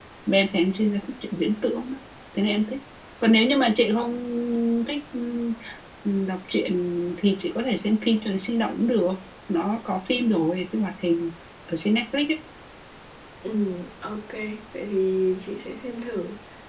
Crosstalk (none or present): none